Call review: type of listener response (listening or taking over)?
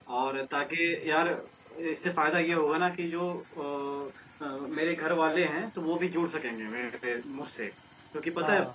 listening